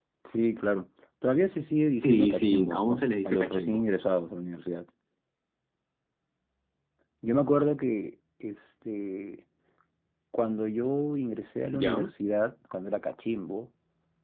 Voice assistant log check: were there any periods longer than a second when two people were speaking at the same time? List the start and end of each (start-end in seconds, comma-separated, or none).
2.0-3.8